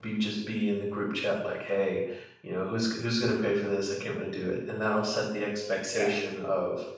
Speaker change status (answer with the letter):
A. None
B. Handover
A